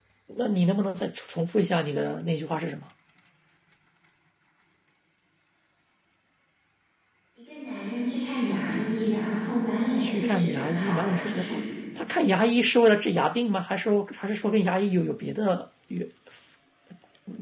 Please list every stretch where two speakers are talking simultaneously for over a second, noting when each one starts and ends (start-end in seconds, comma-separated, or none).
10.0-11.6